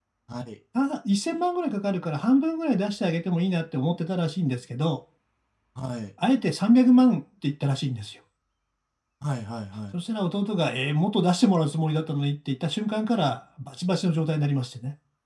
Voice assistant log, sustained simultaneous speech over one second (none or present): none